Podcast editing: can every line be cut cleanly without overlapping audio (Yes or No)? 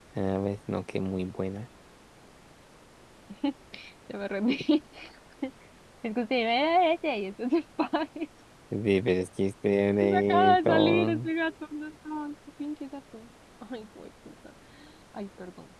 No